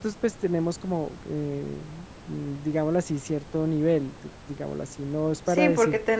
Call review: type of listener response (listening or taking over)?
taking over